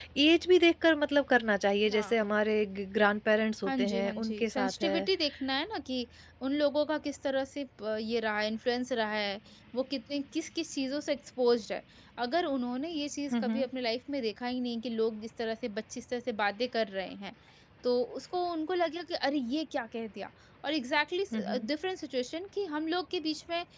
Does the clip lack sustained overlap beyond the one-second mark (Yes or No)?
No